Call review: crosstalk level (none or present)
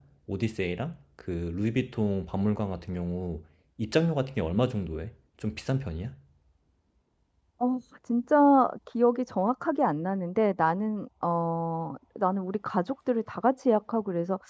none